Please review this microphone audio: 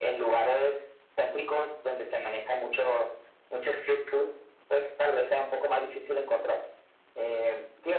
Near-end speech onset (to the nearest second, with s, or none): none